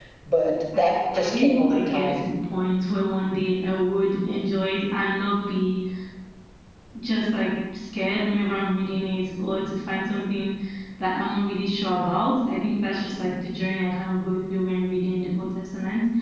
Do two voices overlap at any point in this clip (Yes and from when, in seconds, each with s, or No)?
Yes, from 0.8 s